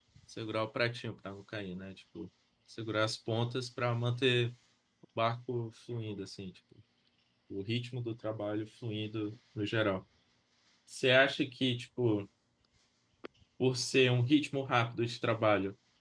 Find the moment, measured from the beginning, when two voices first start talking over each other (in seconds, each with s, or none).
none